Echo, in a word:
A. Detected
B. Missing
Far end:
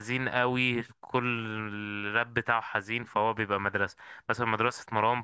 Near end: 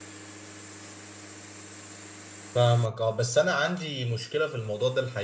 B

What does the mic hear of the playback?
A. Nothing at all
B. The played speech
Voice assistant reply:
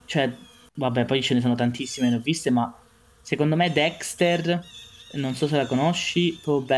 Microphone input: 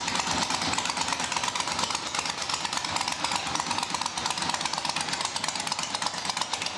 A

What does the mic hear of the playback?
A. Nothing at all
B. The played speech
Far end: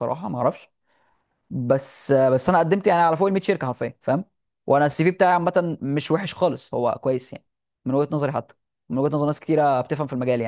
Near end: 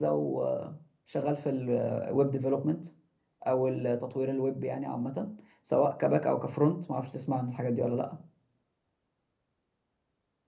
A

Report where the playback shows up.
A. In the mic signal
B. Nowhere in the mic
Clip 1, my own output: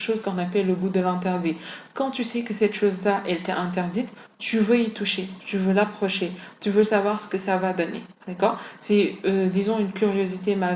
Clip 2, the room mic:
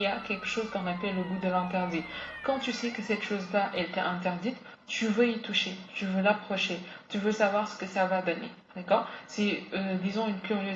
A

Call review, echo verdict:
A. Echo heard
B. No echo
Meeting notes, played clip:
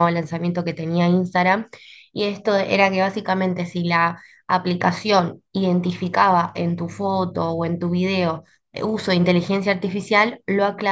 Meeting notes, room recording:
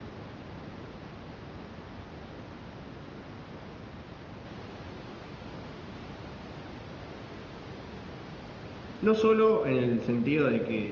B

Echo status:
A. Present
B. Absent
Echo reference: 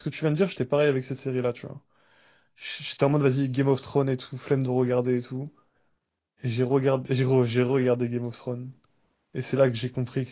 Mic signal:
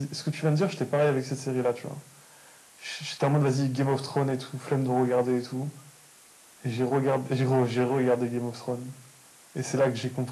A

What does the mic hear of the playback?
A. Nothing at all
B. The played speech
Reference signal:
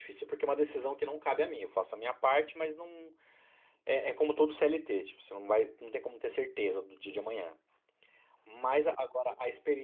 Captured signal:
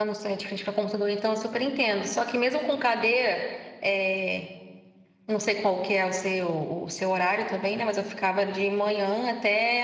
A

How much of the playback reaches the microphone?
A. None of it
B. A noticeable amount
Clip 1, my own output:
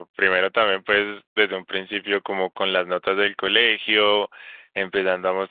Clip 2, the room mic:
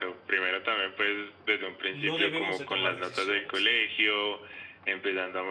B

